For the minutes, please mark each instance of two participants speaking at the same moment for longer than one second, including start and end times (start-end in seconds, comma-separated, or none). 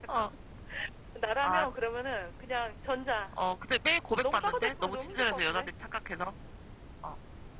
4.2-5.7